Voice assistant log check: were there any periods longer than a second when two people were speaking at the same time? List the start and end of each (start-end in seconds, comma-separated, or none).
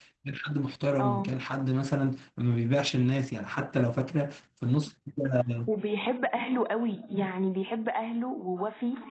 none